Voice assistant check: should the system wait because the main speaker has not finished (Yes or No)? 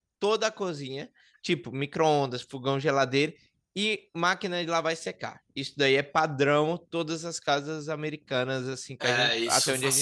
No